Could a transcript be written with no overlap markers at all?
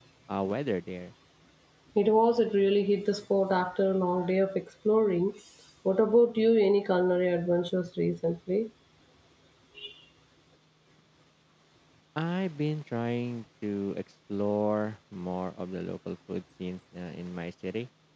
Yes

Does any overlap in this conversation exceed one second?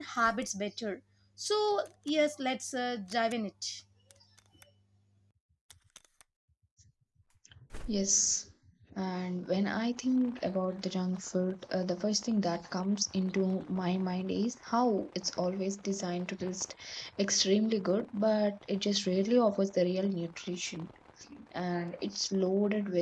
No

